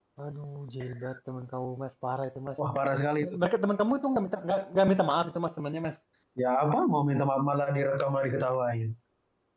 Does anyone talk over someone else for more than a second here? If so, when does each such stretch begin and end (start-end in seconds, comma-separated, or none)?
none